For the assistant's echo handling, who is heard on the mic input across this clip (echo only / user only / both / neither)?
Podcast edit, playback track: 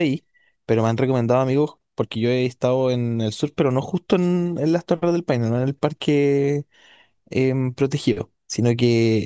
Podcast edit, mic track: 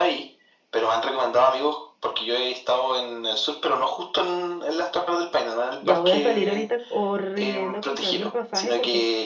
both